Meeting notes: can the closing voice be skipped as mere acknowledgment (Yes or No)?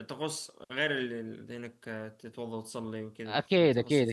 No